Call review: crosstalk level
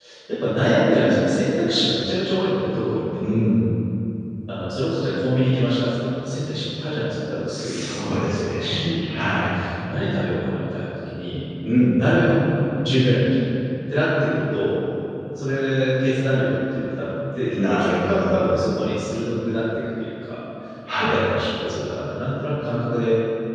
present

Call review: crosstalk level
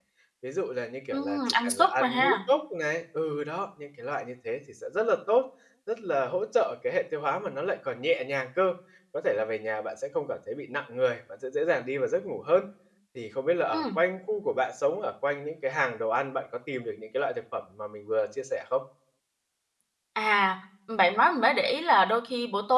present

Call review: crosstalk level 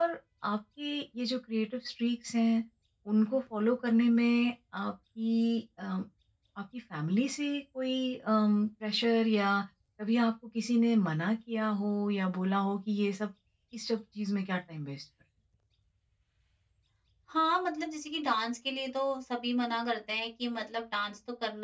none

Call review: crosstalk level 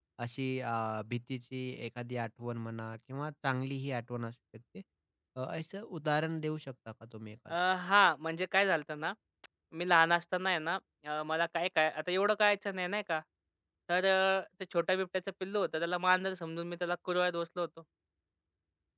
none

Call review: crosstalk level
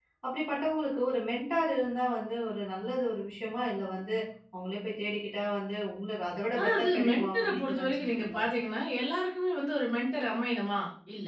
present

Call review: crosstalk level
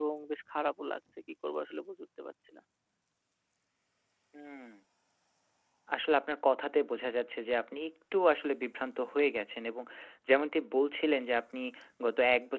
none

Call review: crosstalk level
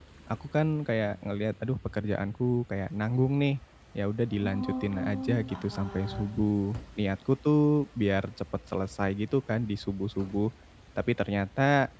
present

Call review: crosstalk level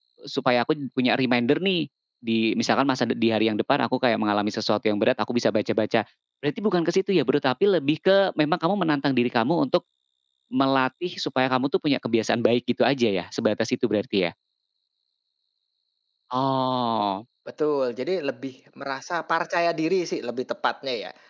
none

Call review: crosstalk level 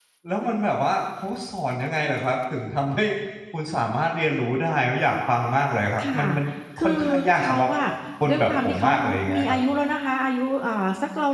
present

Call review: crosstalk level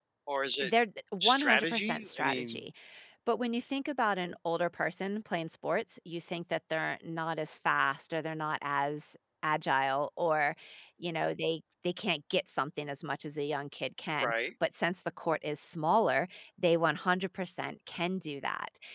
present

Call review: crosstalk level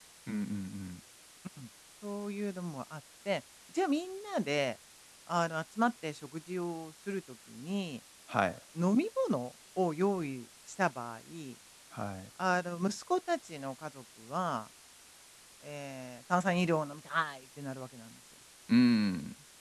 none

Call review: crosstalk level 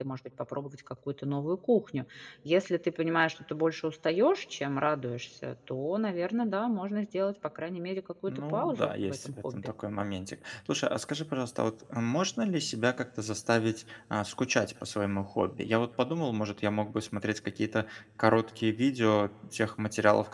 present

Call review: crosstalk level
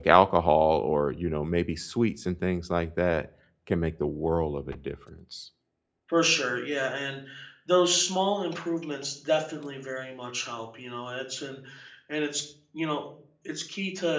none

